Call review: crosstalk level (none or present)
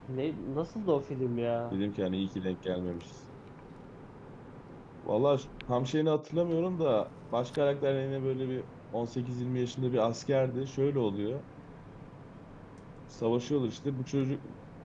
none